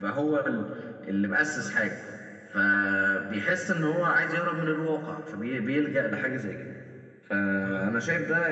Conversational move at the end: listening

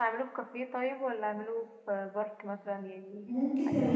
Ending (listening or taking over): taking over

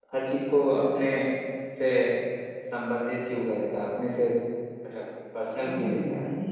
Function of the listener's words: taking over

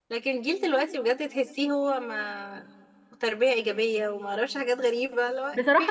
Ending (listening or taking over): taking over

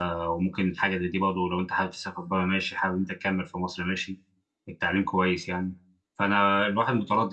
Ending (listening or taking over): listening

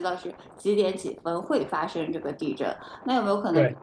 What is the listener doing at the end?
listening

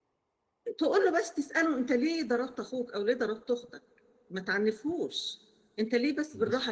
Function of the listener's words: listening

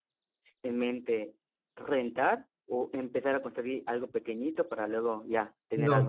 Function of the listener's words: taking over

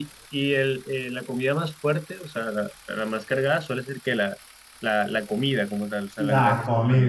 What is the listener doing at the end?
taking over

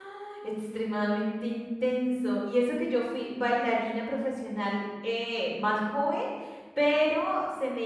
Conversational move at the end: listening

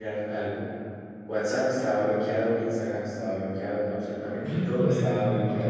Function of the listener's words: taking over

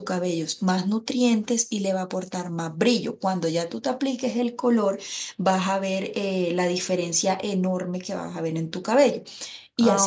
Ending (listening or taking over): taking over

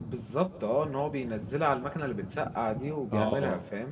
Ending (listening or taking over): taking over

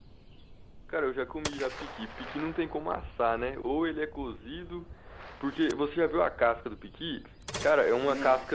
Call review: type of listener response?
listening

